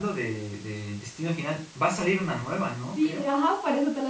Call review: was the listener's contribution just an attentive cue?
No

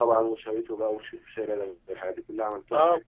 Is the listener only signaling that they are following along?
No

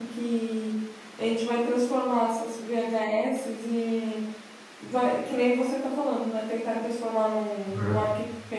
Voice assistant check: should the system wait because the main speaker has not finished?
Yes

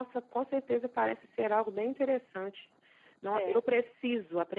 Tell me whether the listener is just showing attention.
Yes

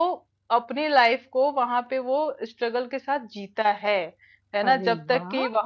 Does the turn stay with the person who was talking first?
Yes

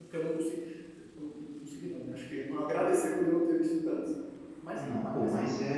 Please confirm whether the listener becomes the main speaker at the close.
Yes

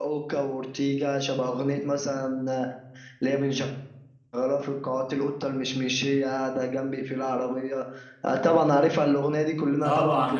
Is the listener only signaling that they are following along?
No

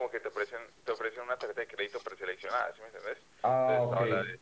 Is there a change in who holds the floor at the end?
No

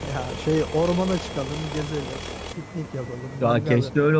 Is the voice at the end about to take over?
Yes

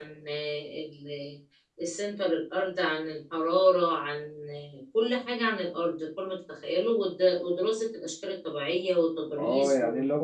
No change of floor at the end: No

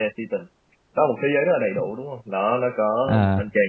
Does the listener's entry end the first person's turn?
No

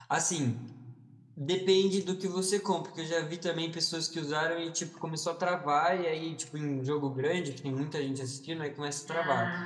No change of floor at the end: Yes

